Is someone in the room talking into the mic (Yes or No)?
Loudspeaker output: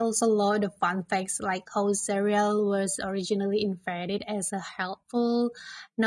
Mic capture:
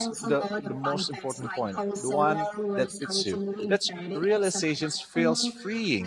Yes